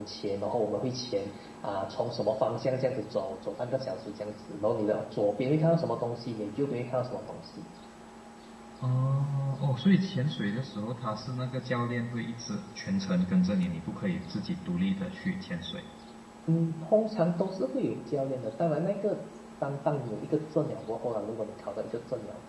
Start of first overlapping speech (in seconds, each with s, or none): none